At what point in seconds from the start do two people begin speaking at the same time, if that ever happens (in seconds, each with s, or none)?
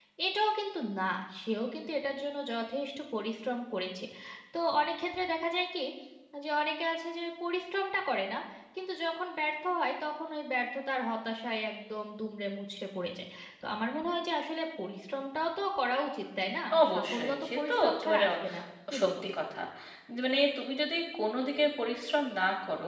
16.8 s